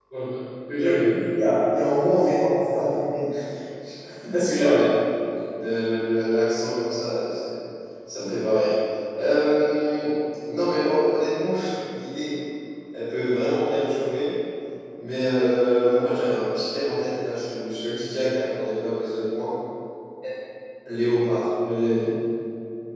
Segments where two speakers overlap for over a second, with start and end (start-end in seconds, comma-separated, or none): none